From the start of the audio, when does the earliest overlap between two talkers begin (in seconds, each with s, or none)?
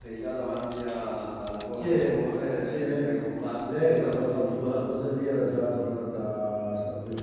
1.8 s